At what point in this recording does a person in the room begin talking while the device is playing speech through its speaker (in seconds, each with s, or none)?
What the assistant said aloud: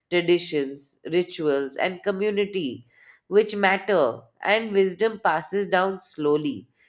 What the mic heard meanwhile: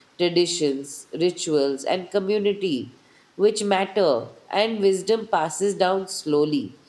none